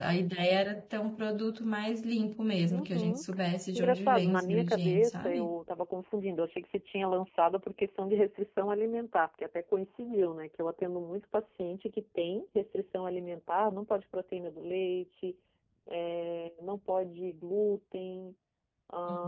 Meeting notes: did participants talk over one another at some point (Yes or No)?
Yes